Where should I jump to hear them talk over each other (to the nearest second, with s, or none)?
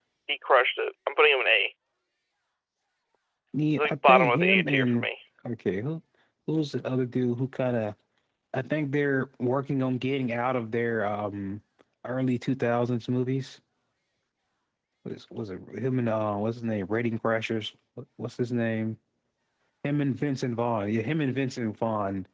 4 s